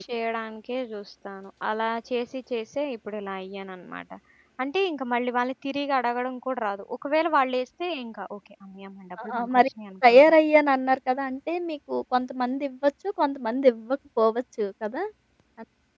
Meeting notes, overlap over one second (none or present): none